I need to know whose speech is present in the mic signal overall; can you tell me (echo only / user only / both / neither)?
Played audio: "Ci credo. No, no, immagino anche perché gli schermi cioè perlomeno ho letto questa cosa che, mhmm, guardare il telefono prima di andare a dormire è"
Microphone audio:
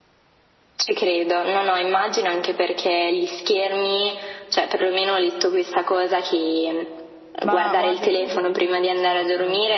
both